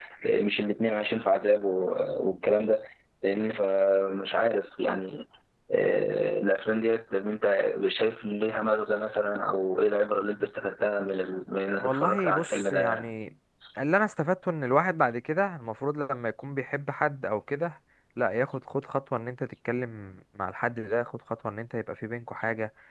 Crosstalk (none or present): present